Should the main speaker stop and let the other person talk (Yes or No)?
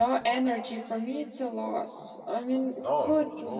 No